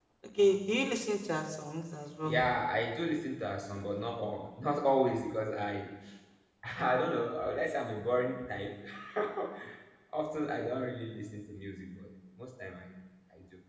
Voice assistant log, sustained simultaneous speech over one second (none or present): none